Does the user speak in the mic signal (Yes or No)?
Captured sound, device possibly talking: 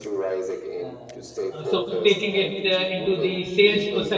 Yes